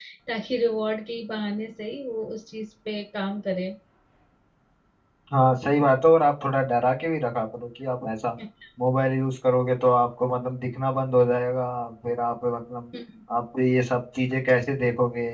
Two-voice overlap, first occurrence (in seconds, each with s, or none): none